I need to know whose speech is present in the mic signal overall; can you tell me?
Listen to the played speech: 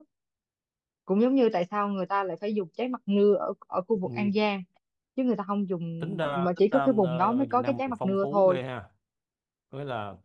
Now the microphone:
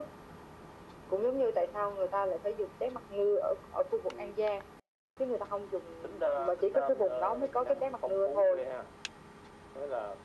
echo only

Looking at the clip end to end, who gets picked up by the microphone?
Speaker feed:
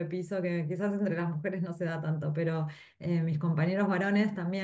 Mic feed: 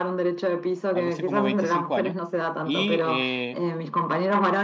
both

